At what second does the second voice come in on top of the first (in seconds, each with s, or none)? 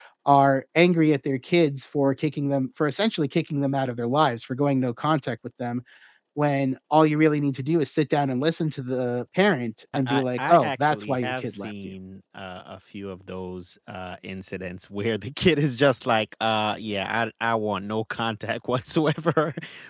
10.1 s